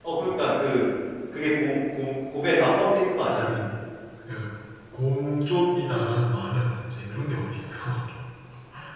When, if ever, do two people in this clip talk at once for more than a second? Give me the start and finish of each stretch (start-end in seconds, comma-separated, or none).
none